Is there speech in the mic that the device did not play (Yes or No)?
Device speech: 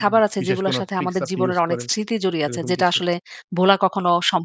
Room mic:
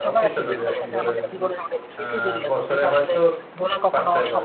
Yes